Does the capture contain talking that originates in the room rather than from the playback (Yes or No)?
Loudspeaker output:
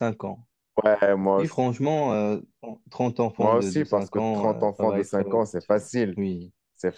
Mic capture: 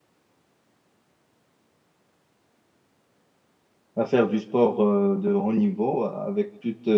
Yes